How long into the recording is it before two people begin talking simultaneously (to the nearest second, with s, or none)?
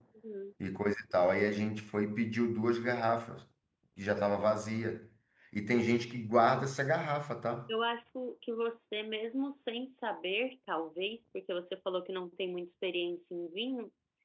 none